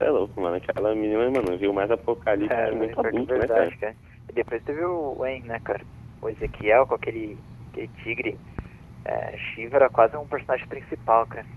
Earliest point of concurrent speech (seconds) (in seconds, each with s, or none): 2.4 s